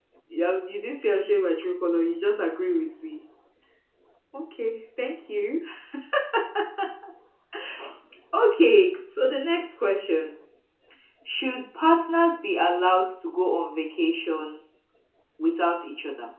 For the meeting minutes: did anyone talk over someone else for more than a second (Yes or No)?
No